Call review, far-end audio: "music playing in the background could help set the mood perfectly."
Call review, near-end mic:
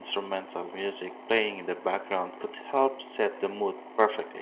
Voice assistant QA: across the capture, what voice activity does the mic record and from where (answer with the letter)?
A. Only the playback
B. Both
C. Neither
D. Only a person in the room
A